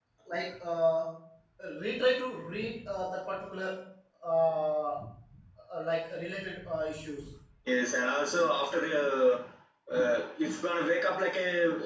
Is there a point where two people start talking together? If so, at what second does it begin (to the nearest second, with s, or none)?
none